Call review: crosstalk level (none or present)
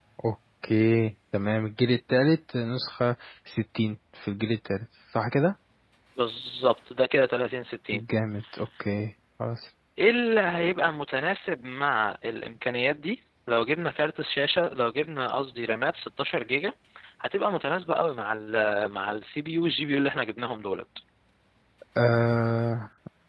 none